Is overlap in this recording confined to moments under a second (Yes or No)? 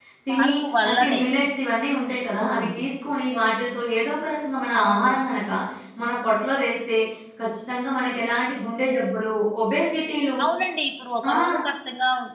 Yes